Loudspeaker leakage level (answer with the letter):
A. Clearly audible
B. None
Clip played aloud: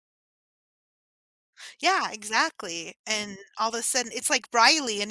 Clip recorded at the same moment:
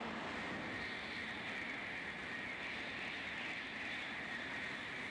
B